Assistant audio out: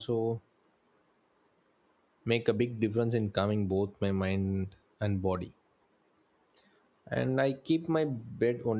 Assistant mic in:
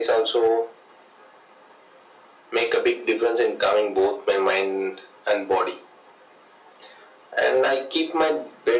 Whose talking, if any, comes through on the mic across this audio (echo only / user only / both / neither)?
echo only